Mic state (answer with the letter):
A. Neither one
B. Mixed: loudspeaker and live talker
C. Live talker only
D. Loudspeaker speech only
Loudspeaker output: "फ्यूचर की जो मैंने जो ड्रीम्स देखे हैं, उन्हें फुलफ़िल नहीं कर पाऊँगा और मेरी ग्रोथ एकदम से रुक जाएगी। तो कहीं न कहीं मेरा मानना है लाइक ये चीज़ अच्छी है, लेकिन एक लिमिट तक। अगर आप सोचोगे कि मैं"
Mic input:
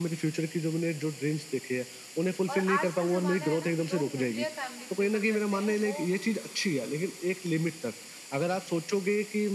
B